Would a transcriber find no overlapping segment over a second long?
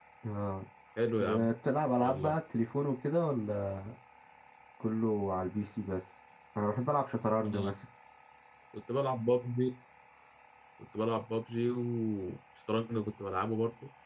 Yes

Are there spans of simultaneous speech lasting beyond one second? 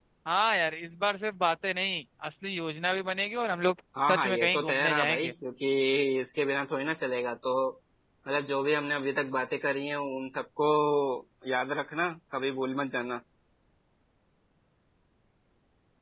Yes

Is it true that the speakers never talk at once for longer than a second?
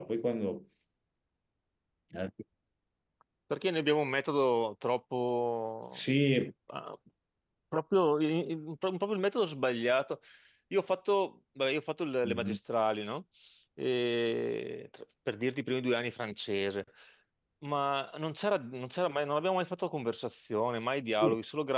Yes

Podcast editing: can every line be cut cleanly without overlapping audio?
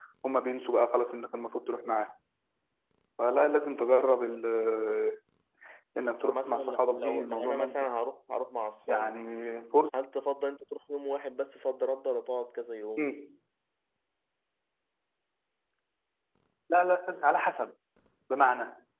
No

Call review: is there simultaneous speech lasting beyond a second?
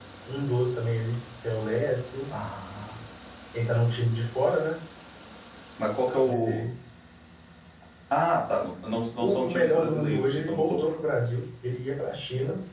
Yes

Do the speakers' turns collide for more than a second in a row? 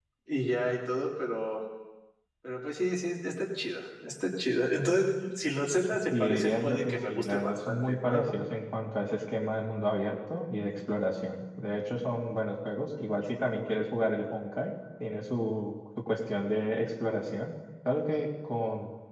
Yes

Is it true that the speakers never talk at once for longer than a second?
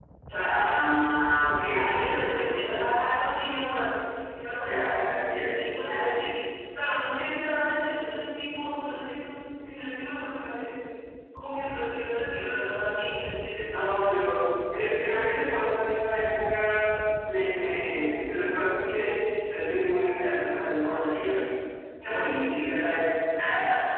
No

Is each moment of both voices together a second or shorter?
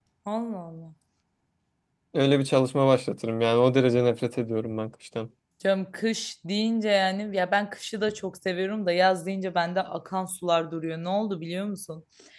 Yes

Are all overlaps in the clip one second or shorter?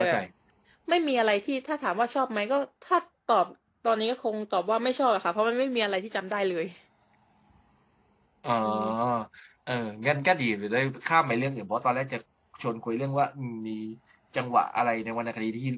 Yes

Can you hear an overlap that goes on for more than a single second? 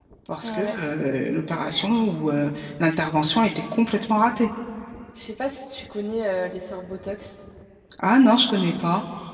No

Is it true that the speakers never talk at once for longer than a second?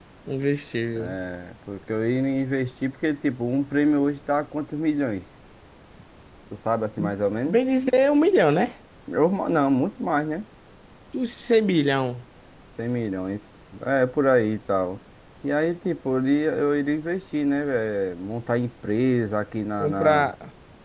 Yes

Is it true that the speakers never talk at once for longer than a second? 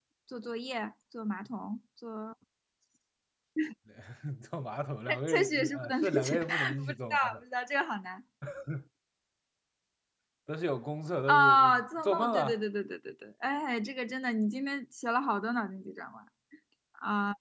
No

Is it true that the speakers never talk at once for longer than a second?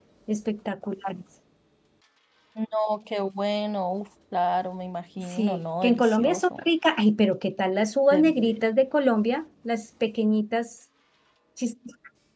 No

